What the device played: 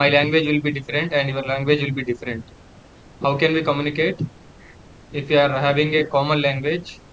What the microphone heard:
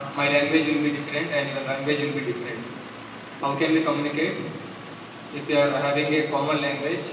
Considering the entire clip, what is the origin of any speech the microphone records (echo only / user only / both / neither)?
echo only